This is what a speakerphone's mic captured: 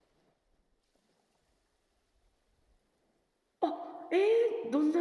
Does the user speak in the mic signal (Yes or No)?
Yes